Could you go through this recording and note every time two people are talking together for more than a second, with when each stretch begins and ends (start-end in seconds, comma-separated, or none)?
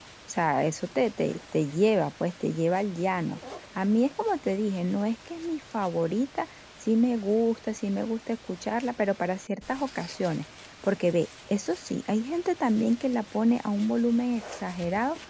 none